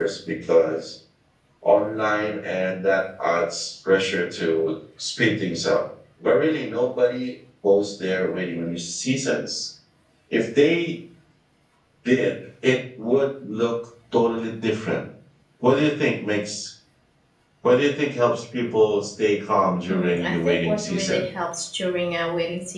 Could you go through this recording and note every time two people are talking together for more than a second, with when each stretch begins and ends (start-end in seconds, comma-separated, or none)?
19.9-21.2